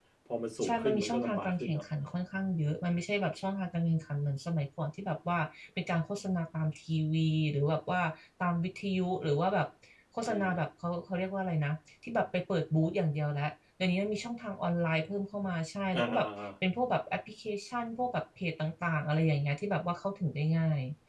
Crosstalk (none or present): present